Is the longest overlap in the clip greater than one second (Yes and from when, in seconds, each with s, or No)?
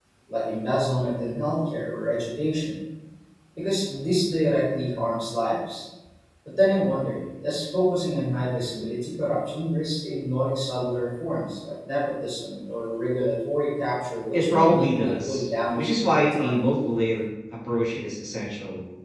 Yes, from 14.3 s